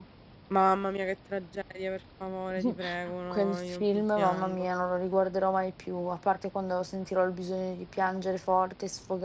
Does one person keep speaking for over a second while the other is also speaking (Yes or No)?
Yes